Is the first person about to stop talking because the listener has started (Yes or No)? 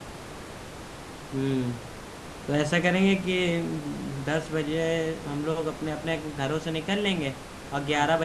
No